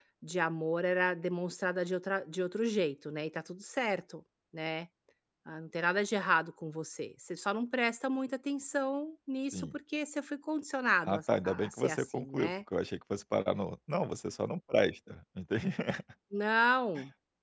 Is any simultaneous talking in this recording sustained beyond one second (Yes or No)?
Yes